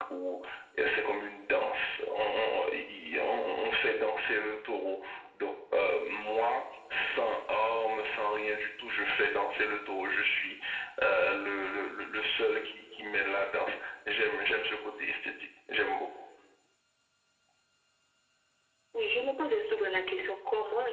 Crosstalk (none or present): none